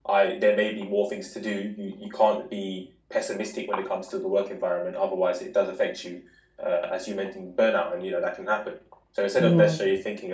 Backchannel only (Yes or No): Yes